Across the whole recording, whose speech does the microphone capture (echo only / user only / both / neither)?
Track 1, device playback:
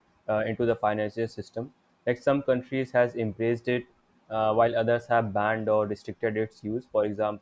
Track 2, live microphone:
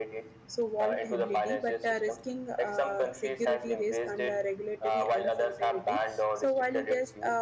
both